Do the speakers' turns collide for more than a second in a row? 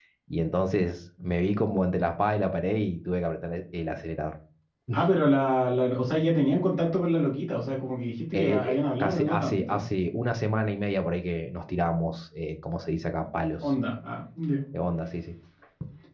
Yes, from 8.3 s

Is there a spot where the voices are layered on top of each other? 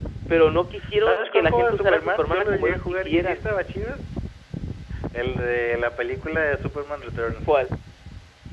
Yes, from 1.0 s

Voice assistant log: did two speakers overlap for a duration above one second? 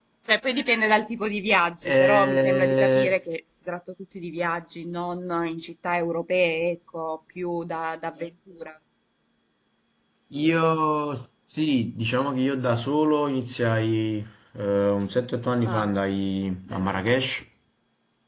Yes, from 1.8 s

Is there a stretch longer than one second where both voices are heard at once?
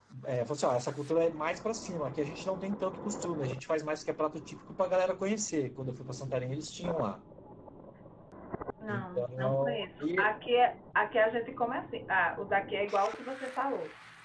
Yes, from 8.9 s

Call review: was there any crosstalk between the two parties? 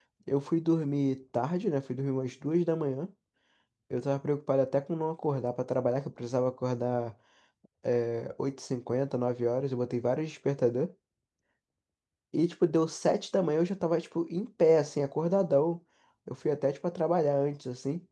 No

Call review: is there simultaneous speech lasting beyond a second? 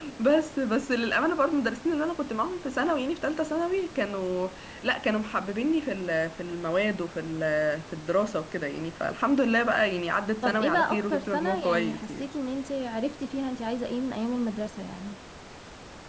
Yes, from 10.4 s

